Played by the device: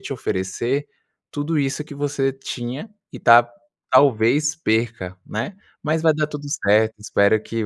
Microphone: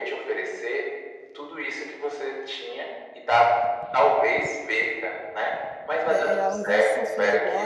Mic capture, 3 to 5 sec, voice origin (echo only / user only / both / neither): echo only